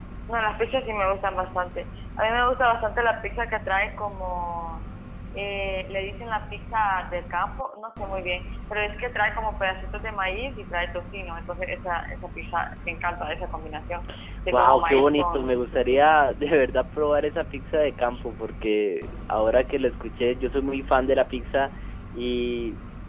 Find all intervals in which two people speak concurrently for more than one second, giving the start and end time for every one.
14.5-16.1

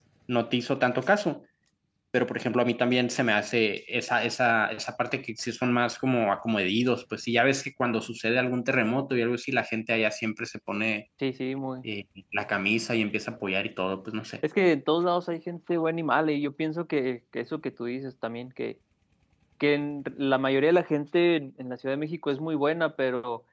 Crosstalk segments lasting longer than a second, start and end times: none

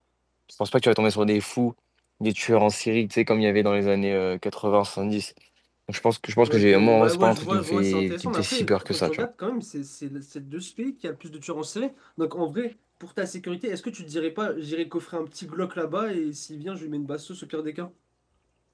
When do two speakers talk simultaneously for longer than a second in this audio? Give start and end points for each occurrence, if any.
6.5-9.2

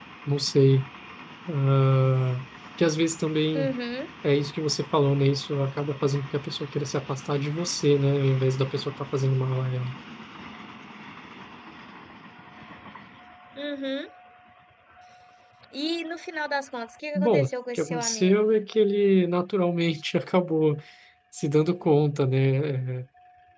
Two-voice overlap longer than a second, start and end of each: 17.1-18.4

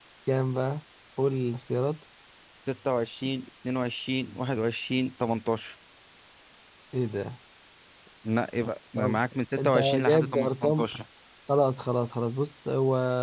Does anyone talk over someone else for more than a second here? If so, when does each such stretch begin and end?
9.6-10.9

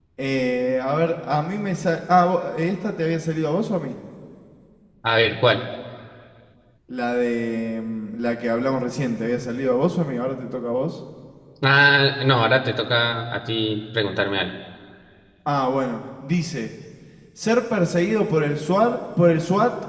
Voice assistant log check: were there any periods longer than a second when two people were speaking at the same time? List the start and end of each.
none

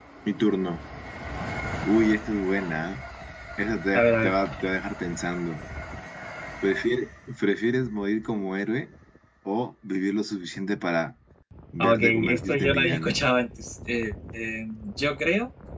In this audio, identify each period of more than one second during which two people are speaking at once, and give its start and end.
11.8-13.2

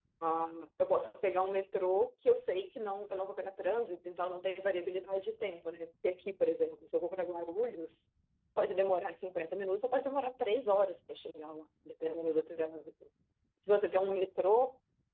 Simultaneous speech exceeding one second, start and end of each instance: none

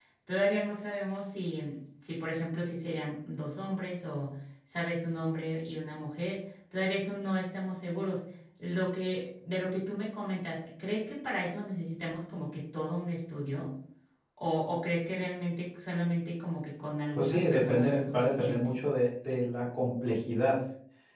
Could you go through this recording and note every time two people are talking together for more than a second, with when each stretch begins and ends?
17.2-18.8

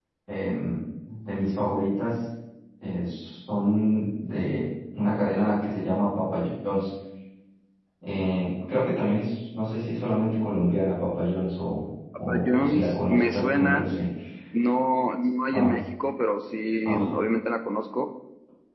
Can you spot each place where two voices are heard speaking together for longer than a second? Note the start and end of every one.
12.3-13.8

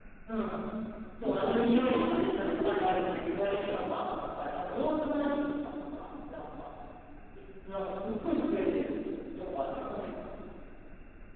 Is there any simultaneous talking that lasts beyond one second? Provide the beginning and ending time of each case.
1.2-3.9

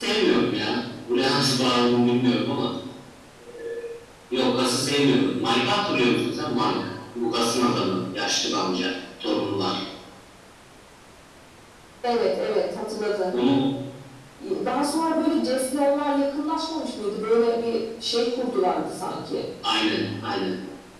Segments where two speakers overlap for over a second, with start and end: none

